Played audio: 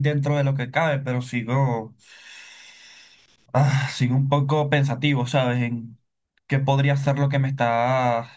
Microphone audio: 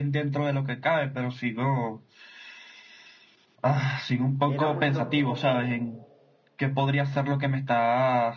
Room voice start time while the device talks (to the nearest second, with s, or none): 4 s